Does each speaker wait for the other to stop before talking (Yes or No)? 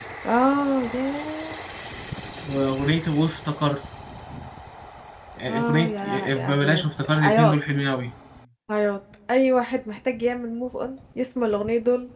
No